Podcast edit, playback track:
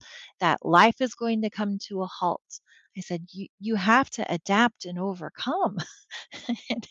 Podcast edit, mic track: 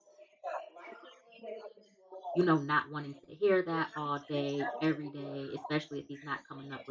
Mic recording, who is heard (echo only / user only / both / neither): both